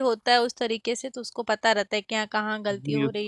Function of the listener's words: taking over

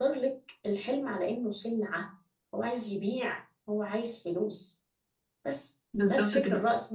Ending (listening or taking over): listening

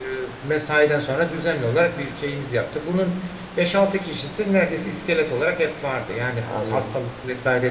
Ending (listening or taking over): listening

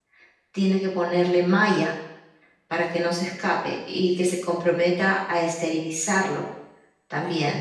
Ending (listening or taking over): taking over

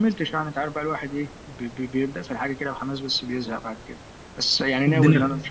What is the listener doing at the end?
listening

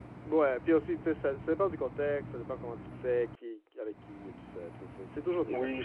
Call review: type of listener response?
taking over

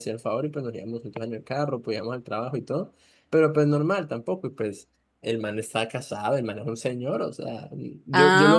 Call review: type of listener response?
listening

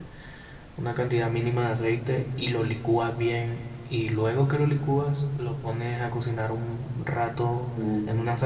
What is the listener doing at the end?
listening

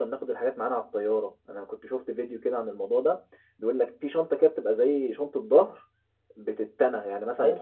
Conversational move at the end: listening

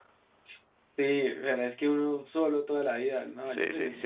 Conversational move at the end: taking over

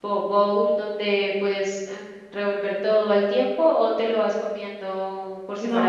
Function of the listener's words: taking over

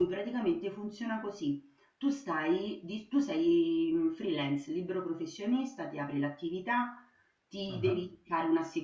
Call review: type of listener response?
listening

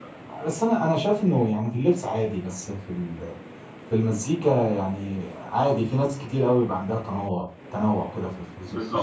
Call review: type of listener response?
taking over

